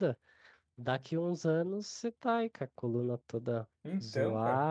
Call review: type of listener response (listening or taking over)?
listening